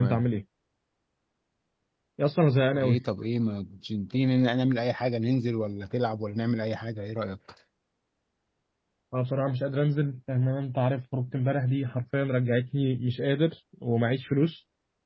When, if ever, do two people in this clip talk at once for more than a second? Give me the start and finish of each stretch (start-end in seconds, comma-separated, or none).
none